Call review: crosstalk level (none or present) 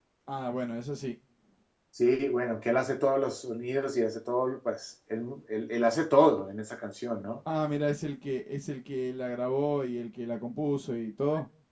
none